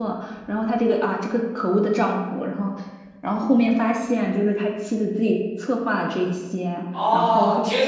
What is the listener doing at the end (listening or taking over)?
taking over